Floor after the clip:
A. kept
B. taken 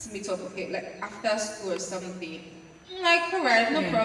A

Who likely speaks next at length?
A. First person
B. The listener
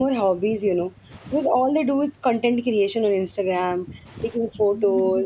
A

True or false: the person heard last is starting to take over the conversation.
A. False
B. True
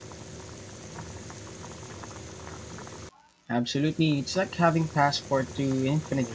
B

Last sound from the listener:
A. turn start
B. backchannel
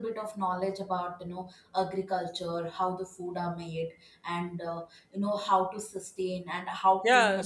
A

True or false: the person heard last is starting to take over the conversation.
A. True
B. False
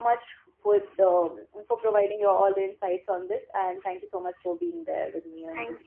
A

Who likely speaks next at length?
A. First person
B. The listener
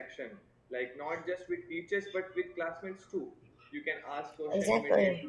A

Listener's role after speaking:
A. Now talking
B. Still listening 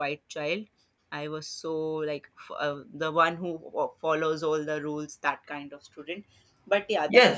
A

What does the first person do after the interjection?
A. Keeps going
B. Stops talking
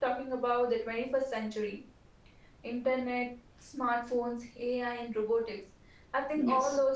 A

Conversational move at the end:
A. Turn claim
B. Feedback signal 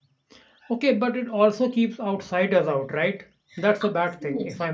A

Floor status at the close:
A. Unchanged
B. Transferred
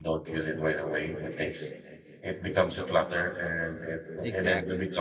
A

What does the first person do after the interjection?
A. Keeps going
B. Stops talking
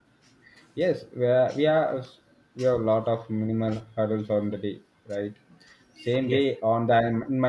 A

